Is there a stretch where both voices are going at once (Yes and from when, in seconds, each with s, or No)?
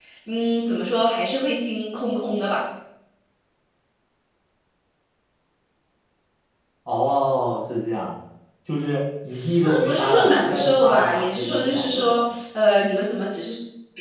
Yes, from 9.4 s